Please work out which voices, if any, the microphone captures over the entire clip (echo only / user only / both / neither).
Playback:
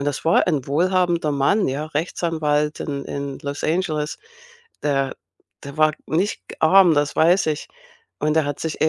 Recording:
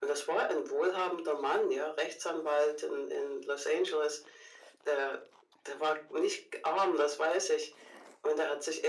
echo only